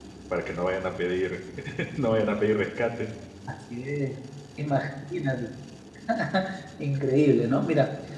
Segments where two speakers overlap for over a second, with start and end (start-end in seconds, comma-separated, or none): none